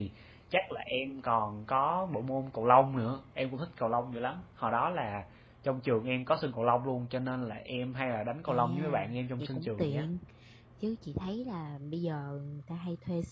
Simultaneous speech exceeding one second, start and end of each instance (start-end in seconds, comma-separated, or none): 8.5-10.1